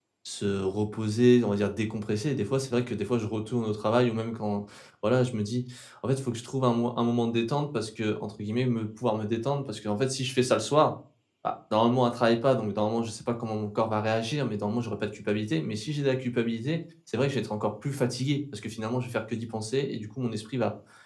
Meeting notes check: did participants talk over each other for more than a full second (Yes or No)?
No